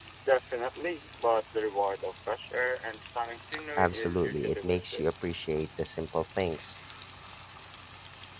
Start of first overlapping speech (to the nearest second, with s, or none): 4 s